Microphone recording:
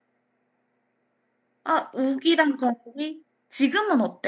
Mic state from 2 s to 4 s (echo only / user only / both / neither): user only